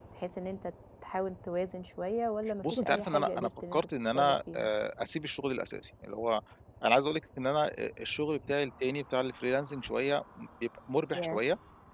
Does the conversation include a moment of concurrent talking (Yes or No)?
Yes